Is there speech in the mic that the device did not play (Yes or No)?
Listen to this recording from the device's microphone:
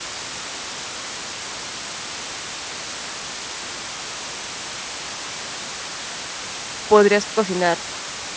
Yes